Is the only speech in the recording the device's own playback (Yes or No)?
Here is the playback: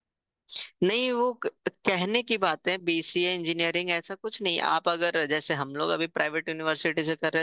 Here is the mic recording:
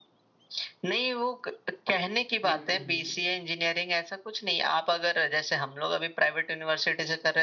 No